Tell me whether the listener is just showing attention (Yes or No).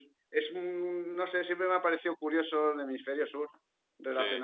Yes